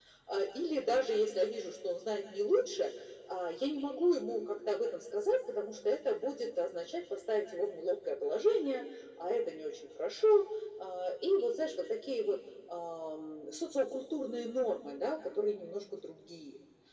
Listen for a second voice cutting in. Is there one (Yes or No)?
No